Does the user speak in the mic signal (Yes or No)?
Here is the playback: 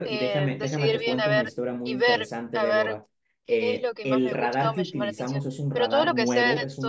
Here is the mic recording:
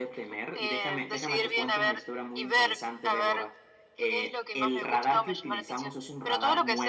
No